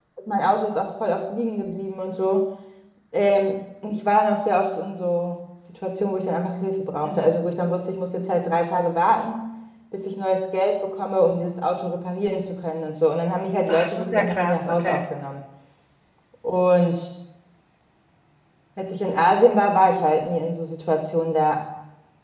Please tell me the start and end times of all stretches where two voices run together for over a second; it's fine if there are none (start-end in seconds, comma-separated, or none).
13.7-15.0